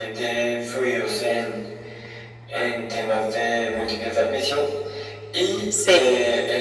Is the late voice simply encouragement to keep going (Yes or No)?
Yes